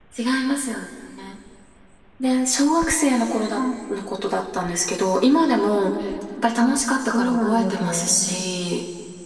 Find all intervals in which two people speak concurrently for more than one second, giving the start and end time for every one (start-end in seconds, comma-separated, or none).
7.1-8.4